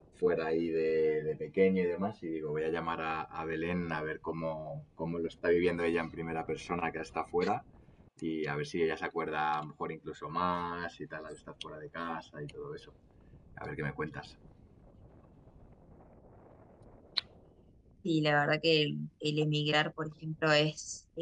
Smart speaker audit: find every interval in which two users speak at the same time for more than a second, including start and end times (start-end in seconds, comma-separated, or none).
none